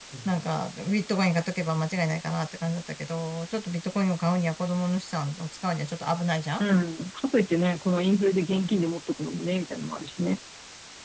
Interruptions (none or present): none